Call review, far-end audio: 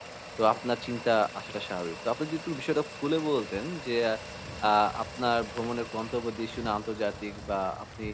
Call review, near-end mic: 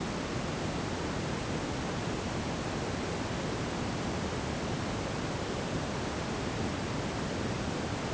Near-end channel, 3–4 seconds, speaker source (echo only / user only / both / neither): neither